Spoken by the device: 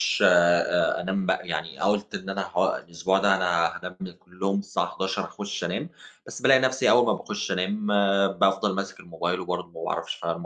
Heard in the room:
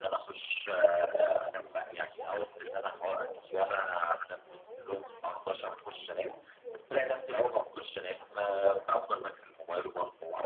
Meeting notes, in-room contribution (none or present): present